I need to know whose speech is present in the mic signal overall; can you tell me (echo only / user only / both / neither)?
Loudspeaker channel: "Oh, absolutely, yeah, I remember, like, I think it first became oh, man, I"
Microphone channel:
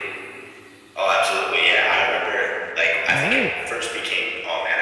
both